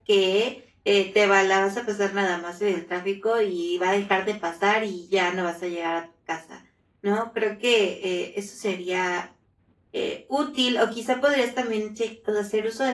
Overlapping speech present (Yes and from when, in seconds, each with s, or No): No